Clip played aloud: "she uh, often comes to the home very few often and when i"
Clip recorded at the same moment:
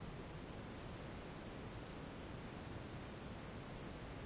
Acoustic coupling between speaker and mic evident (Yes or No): No